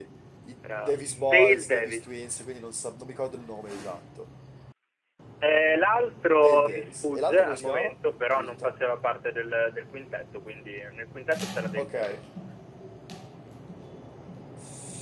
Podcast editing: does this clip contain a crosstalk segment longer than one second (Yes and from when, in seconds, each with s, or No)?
Yes, from 0.8 s